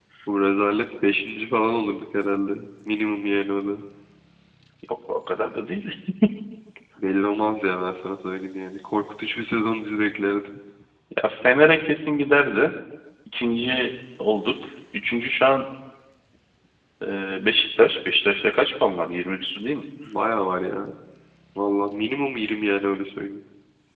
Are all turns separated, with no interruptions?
Yes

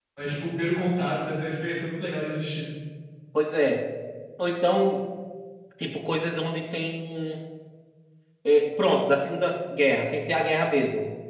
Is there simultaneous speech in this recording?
No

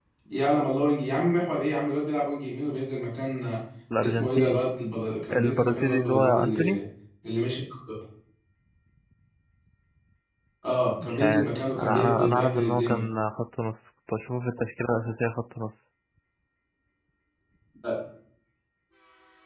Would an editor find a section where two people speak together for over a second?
Yes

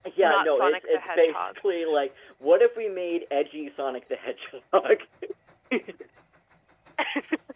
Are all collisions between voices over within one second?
No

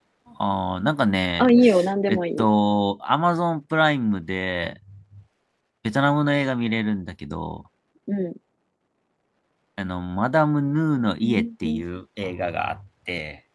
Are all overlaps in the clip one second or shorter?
Yes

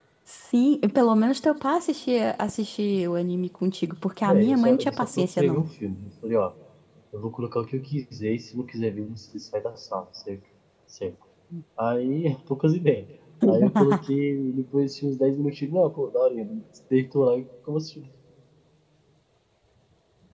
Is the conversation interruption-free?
No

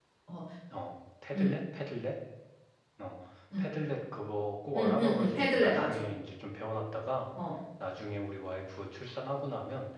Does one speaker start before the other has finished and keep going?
Yes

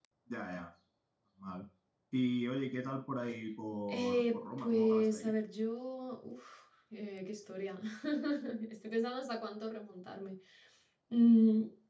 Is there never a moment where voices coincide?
No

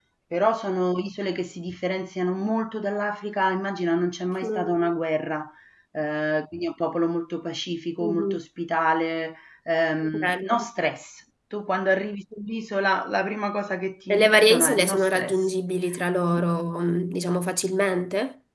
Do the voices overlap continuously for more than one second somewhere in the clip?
Yes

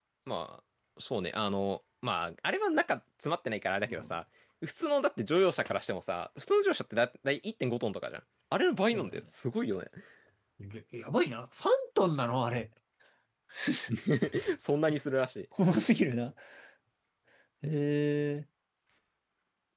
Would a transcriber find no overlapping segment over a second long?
Yes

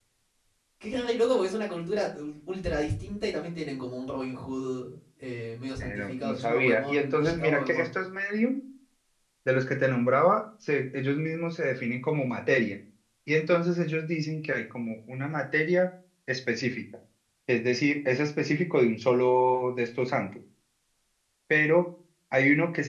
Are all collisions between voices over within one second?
No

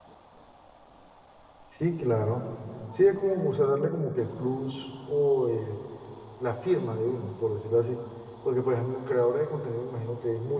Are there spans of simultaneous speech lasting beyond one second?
No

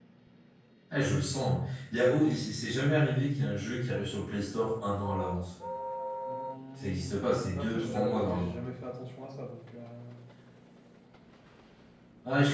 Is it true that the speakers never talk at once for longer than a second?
No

